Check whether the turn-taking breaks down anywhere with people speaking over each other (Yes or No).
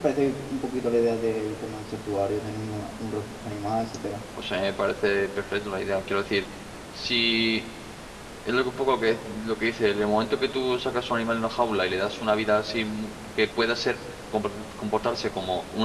No